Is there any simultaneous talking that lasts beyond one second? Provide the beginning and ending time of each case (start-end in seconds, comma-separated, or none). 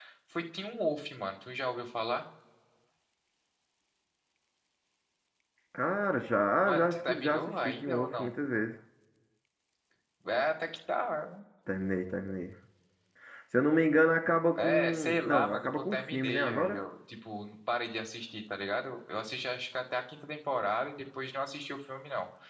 6.6-8.3, 14.6-16.8